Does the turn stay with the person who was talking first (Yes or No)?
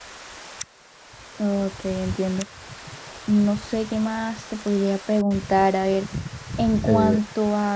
Yes